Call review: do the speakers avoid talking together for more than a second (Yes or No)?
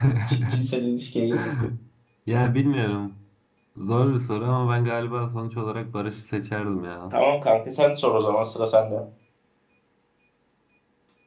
Yes